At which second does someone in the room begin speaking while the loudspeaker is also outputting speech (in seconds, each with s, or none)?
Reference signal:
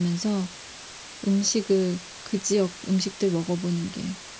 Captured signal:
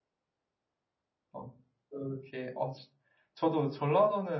1.3 s